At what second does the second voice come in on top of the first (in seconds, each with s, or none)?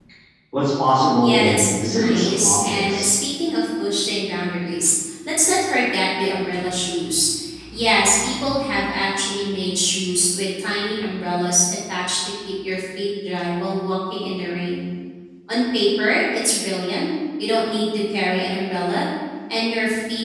1.2 s